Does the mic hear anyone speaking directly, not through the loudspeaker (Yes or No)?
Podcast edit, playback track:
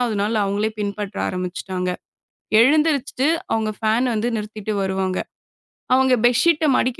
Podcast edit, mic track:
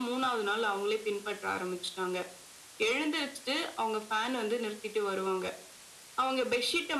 No